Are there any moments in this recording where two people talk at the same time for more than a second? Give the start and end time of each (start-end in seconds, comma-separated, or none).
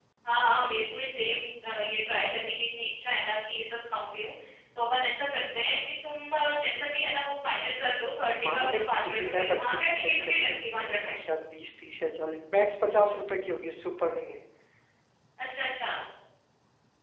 8.4-11.0